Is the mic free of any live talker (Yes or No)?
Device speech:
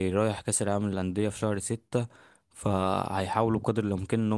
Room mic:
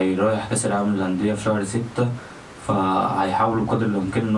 Yes